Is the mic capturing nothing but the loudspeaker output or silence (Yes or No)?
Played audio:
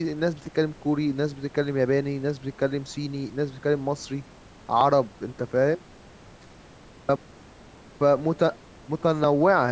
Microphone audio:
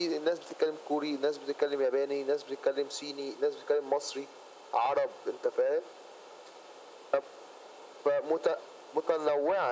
Yes